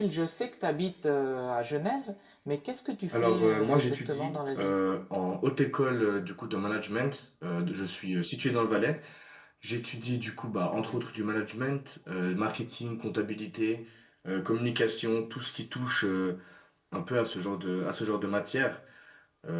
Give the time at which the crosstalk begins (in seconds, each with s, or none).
3.1 s